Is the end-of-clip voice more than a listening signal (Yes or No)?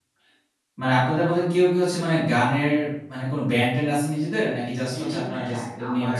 Yes